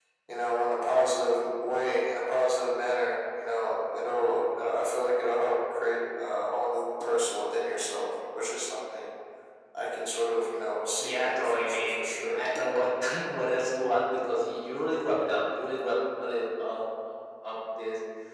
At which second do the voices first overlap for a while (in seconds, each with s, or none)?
11.0 s